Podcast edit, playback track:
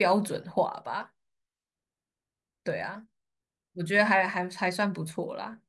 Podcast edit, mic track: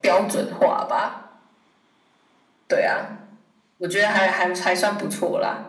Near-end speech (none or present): none